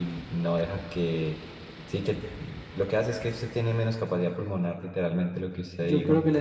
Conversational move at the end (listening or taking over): taking over